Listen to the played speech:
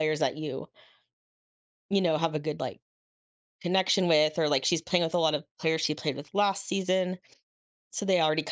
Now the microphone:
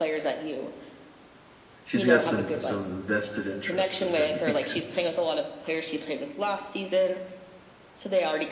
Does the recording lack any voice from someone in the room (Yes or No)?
No